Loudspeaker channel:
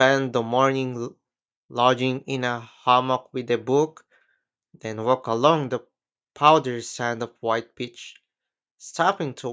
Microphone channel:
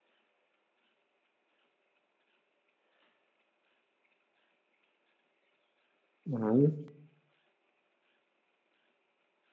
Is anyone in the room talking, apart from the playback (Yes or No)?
Yes